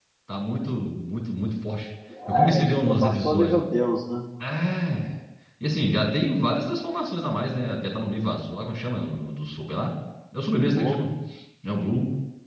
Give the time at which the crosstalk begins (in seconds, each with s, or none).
2.3 s